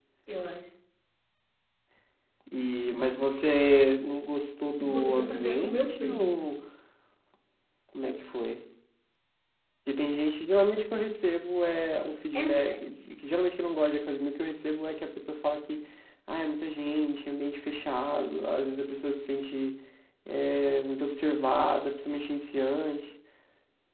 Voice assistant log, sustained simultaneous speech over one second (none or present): present